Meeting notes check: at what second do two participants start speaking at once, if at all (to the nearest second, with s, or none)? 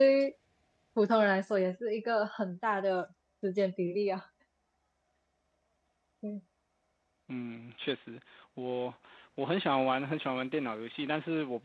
none